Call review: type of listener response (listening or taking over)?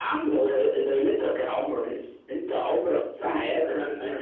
taking over